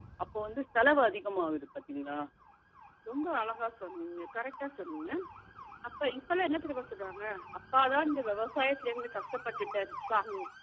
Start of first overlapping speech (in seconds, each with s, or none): none